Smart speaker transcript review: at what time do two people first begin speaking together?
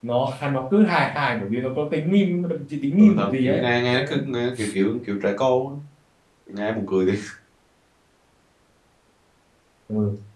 3 s

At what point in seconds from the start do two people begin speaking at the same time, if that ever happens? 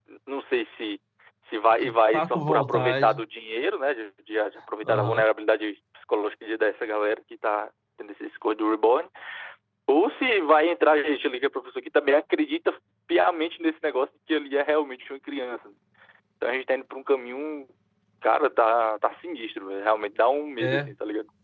2 s

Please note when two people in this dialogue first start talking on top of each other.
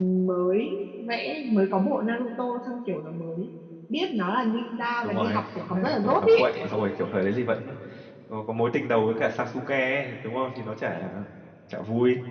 5 s

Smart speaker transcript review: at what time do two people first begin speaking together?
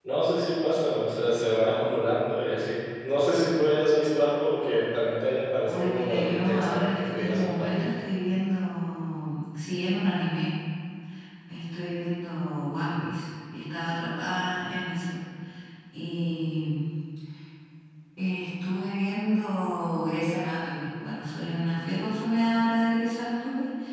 6 s

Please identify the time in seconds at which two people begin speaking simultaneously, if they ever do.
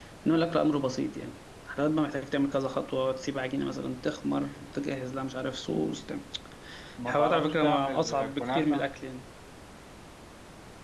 7 s

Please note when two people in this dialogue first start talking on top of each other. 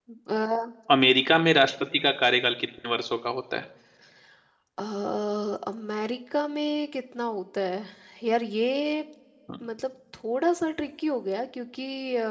none

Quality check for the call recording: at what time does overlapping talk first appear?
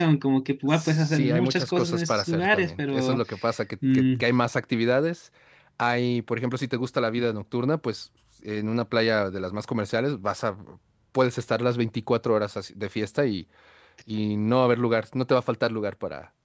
1 s

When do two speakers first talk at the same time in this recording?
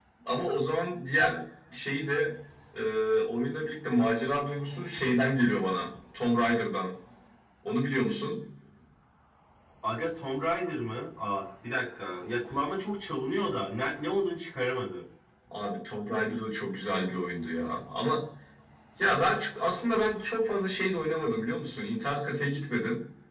none

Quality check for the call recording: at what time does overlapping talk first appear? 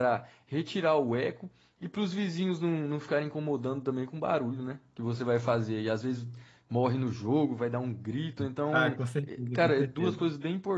9 s

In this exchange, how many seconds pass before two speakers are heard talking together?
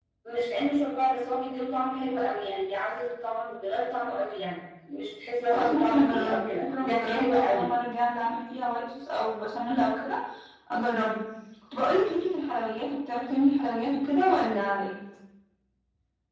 6 s

